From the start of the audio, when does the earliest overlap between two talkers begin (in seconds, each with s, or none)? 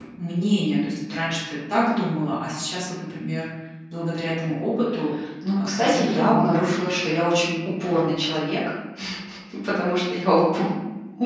5.6 s